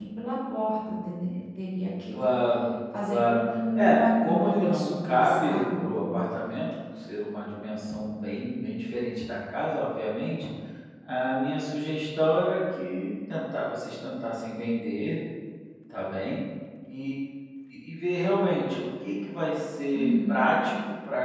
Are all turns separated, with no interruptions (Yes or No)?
No